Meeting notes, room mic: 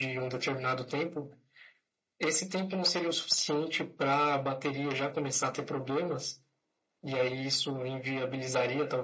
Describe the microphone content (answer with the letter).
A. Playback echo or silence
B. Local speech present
A